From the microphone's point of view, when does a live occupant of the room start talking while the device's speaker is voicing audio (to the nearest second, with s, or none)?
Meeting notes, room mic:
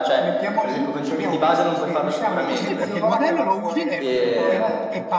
2 s